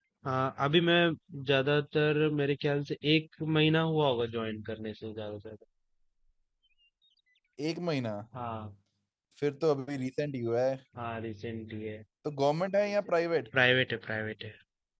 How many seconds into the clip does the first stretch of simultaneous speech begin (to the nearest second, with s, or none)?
none